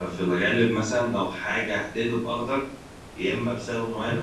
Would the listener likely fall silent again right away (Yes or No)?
Yes